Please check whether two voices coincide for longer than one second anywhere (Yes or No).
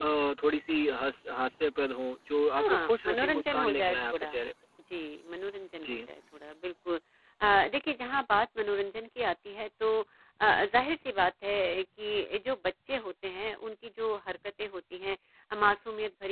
Yes